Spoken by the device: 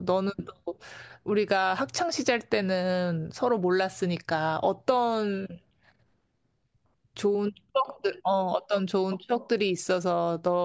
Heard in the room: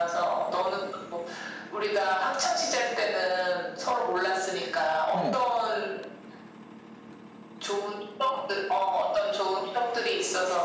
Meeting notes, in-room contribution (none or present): present